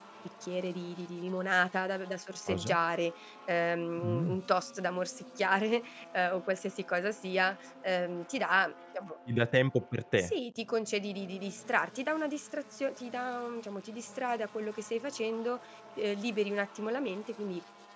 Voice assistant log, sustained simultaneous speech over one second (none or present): none